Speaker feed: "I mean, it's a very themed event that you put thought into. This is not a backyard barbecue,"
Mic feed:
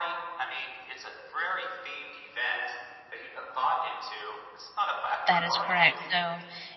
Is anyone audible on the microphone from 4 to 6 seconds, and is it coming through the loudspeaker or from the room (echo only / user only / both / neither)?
both